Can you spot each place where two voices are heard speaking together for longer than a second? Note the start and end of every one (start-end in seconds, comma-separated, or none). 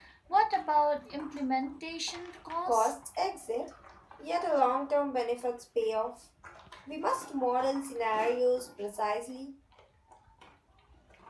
none